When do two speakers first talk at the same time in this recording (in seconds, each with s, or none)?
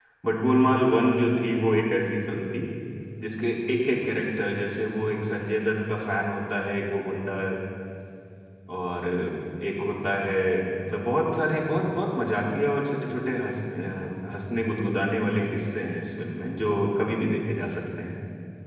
none